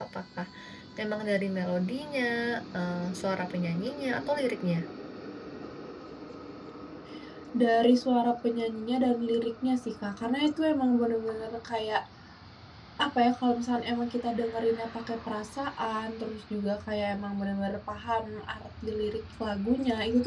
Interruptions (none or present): none